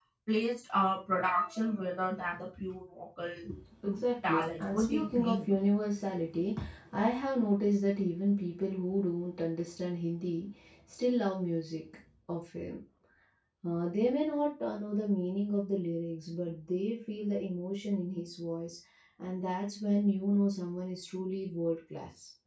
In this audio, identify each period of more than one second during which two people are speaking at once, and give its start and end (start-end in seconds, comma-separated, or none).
3.8-5.5